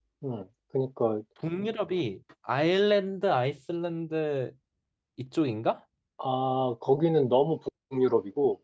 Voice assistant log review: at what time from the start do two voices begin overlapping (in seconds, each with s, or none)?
none